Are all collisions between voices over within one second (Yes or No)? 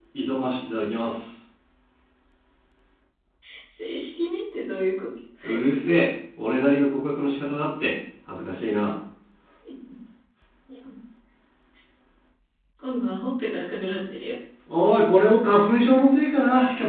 Yes